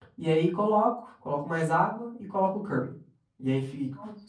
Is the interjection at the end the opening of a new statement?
No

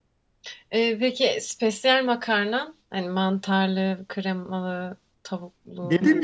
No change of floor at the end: No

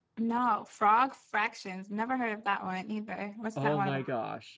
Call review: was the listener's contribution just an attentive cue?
No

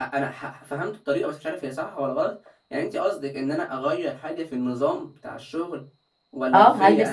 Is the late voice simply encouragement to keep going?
No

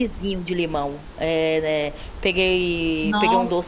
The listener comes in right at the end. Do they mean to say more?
No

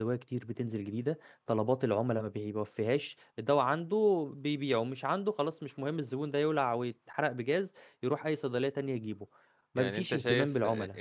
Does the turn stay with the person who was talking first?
No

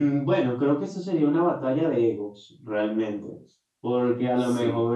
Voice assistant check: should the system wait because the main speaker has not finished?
Yes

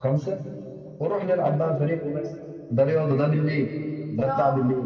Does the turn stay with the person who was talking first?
Yes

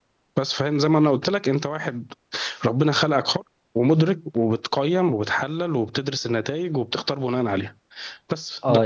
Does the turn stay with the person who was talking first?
No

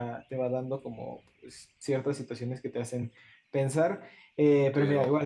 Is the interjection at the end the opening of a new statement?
Yes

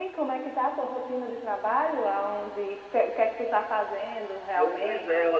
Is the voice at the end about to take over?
Yes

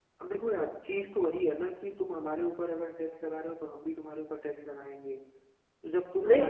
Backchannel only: Yes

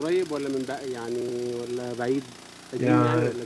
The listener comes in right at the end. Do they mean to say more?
Yes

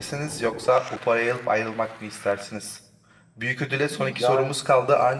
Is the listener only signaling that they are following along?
Yes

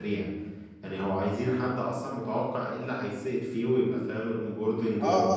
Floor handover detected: Yes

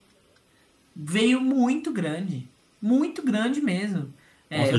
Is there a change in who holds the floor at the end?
Yes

